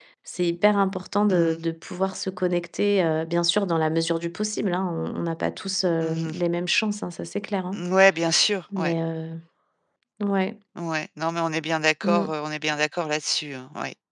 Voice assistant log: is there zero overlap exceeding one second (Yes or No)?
Yes